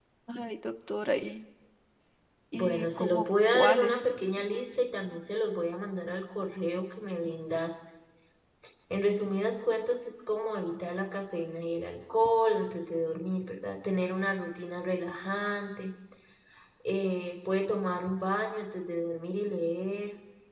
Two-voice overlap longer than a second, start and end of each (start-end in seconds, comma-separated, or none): 2.5-4.1